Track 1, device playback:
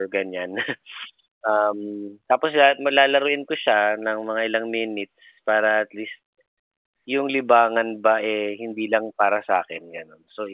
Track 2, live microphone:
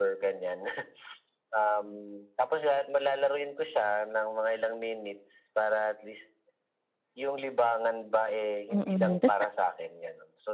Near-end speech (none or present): present